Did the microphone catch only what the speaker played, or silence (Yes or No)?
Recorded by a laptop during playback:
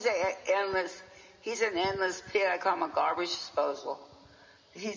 Yes